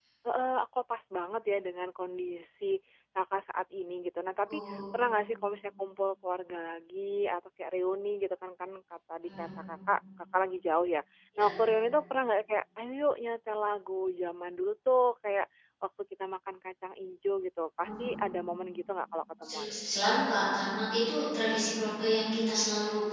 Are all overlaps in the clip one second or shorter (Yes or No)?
Yes